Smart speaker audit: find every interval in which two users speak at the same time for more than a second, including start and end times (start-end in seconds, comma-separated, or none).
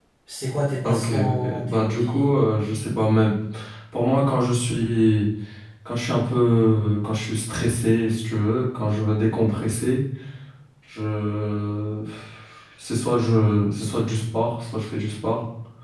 0.8-2.3